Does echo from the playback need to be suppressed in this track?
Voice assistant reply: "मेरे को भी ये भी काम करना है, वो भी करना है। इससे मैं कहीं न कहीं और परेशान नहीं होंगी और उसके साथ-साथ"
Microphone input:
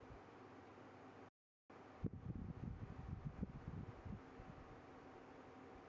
No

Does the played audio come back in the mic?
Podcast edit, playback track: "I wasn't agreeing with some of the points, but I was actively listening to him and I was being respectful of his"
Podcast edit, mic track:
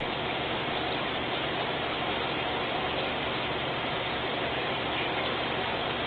No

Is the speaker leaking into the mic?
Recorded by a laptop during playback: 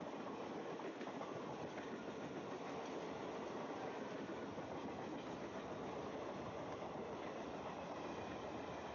No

